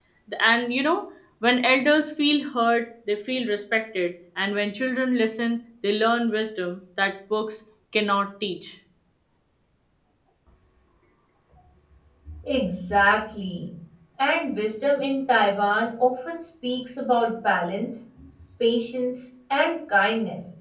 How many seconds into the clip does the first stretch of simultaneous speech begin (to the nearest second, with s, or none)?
none